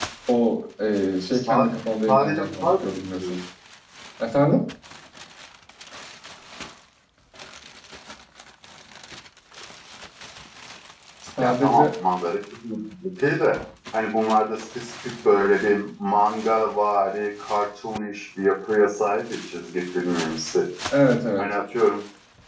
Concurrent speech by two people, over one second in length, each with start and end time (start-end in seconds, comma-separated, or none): 2.1-3.3